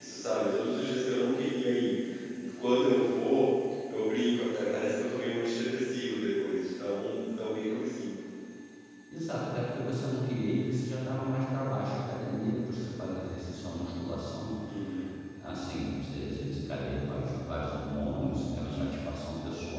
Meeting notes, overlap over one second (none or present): none